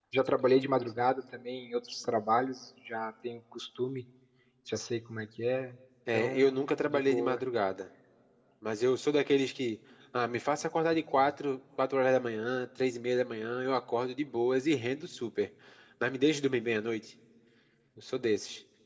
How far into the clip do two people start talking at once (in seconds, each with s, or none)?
6.1 s